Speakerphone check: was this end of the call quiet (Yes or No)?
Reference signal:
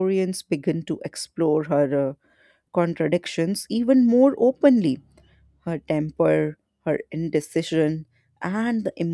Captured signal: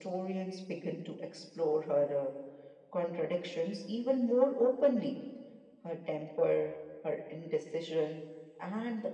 Yes